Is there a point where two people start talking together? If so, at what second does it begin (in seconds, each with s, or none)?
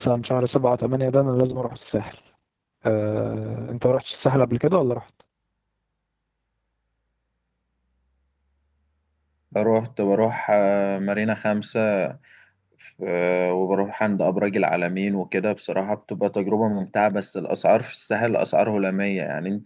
none